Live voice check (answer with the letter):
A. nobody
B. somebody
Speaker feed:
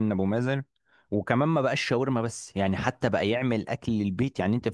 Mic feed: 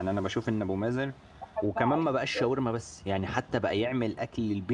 B